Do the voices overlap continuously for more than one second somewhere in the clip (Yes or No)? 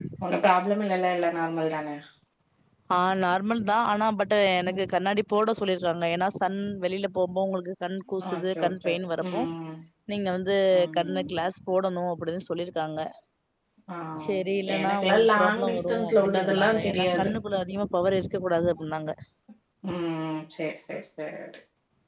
Yes